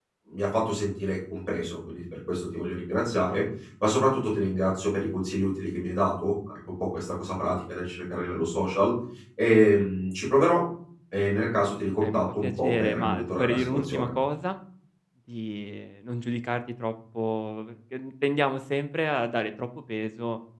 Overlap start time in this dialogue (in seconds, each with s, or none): 12.0 s